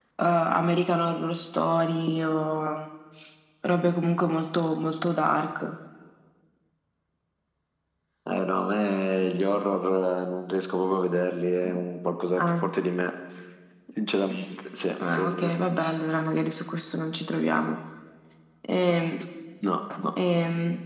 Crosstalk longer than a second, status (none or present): none